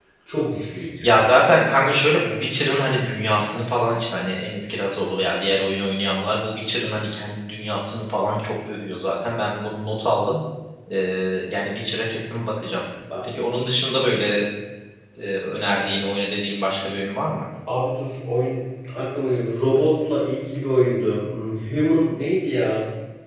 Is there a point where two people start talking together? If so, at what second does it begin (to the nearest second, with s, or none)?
none